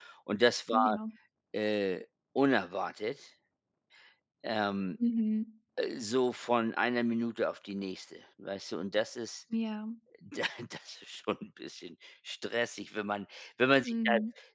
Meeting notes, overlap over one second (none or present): none